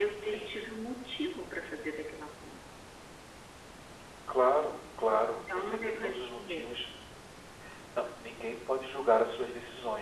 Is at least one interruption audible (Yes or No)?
Yes